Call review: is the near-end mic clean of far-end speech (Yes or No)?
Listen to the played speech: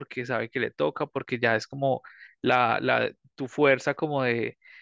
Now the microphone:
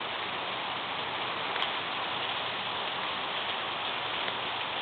Yes